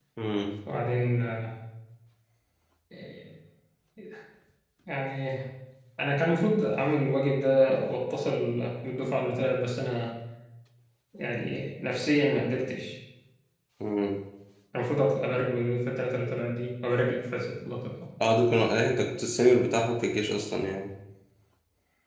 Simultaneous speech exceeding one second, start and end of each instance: none

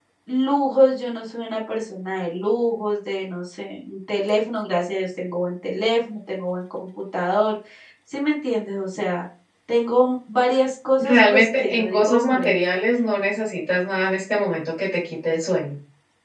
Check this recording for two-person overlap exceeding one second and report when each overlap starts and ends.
11.0-12.6

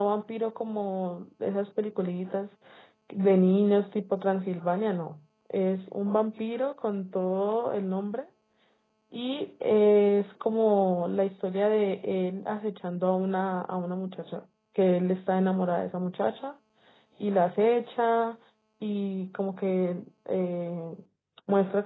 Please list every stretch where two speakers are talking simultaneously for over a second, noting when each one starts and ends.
none

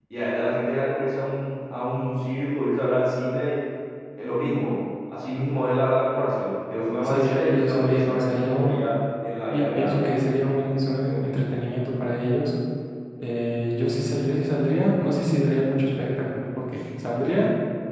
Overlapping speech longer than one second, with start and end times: 7.0-8.8

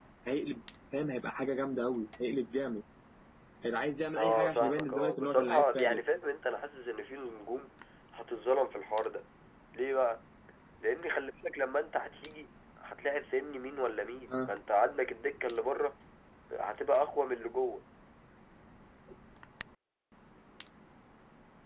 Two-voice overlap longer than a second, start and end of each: 4.2-6.0

